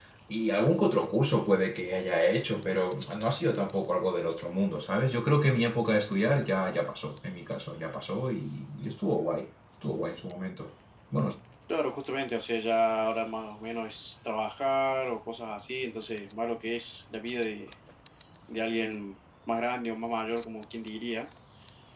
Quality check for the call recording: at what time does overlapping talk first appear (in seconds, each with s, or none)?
none